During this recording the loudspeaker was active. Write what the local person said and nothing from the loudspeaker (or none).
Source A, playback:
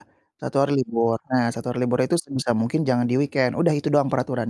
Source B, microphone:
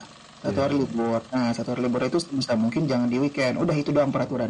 Iya iya.